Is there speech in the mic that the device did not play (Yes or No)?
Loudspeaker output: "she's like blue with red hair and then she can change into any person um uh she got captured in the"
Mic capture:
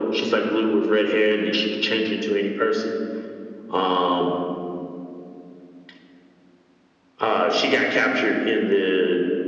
No